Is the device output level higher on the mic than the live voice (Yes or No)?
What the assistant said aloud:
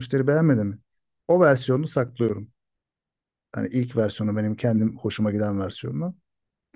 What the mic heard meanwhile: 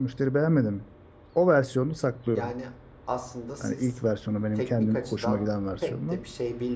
Yes